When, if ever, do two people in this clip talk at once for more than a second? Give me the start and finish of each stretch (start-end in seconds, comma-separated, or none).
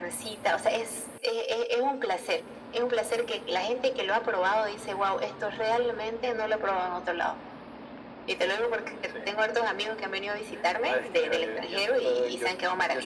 10.8-12.5